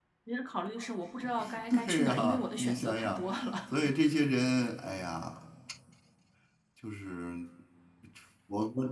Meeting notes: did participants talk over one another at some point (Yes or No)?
Yes